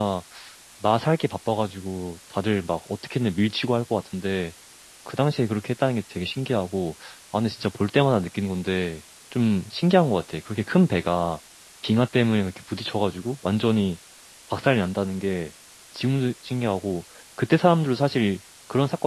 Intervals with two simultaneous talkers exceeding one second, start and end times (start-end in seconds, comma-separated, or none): none